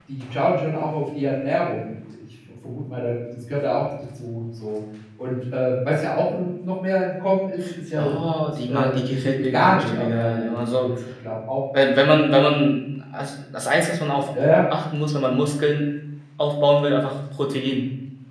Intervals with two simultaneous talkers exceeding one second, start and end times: 8.7-10.9

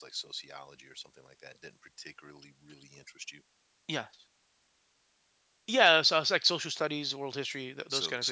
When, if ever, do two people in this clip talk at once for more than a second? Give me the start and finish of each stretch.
none

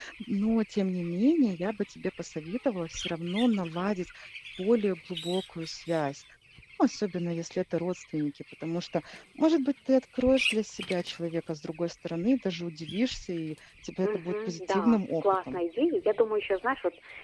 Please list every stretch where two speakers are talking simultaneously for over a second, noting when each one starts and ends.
14.0-15.6

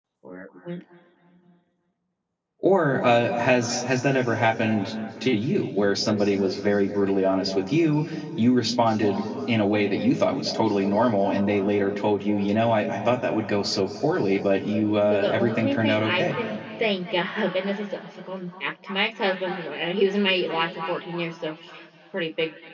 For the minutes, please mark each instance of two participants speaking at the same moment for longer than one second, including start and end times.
15.1-16.4

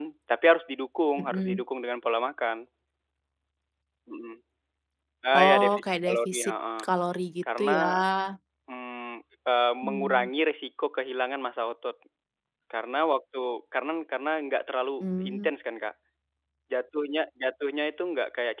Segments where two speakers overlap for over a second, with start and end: 5.4-6.8

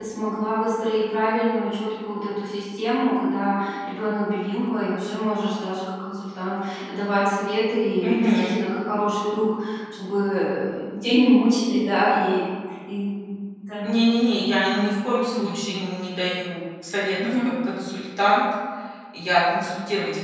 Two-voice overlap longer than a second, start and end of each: none

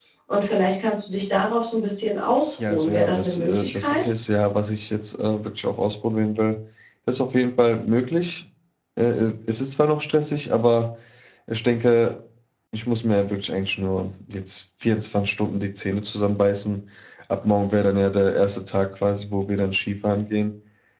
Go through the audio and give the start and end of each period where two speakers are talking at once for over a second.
2.7-4.1

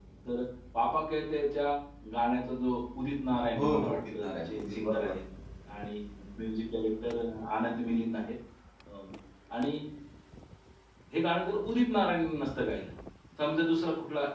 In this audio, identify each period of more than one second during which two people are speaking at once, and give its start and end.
3.6-5.2

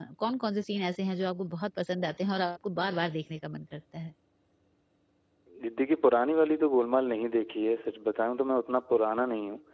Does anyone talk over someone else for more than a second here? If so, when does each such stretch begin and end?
none

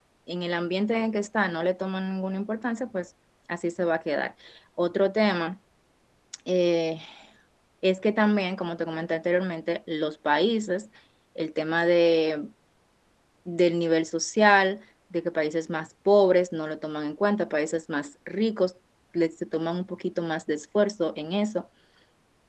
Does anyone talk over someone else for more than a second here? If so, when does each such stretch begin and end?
none

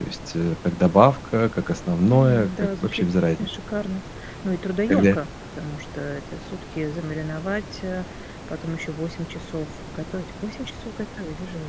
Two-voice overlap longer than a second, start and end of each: 2.1-3.5

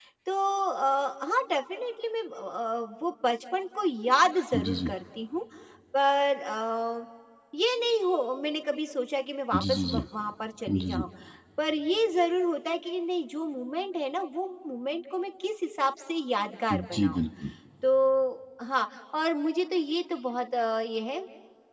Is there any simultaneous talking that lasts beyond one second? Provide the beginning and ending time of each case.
none

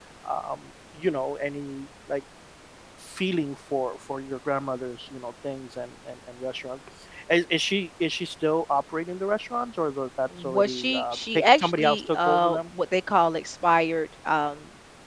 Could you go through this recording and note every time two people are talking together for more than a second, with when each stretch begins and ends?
10.4-12.6

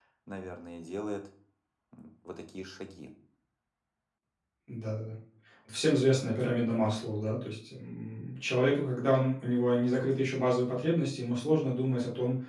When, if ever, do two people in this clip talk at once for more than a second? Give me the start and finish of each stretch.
none

